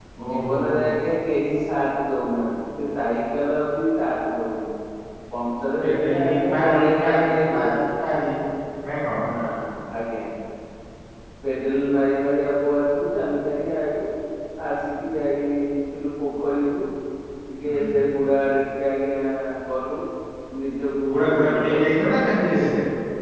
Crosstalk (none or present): present